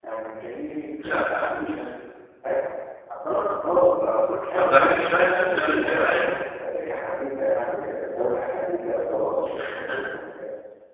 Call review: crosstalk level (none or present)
present